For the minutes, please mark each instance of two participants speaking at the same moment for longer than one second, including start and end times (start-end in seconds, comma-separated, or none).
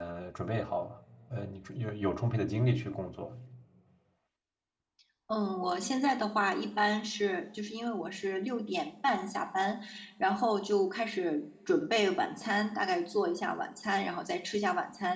none